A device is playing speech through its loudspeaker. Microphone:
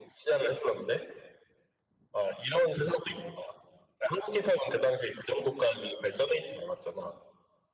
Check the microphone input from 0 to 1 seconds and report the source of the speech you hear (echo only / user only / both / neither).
echo only